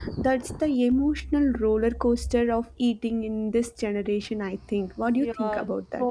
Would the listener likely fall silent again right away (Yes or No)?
No